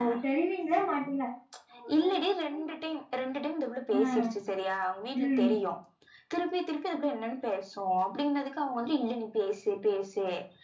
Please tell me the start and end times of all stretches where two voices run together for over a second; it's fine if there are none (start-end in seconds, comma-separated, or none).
none